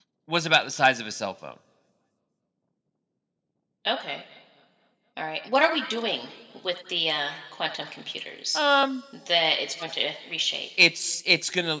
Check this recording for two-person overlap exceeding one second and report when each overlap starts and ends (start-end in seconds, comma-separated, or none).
none